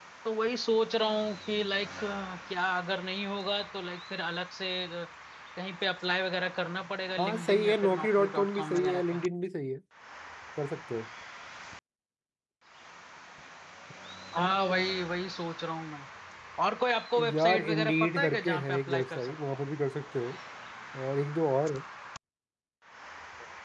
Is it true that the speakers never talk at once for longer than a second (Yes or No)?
No